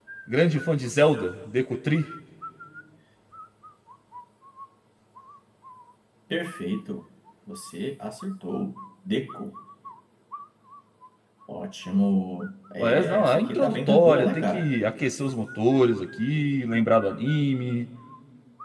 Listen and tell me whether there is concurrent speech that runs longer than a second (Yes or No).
Yes